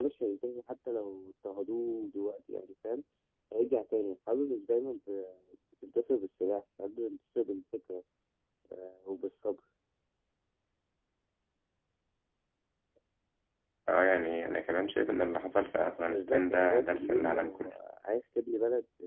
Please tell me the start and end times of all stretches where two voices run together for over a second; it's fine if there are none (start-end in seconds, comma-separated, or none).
16.1-17.7